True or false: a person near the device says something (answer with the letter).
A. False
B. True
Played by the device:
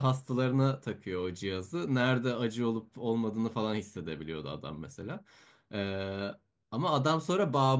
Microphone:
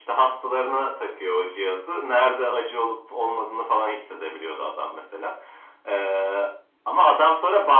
A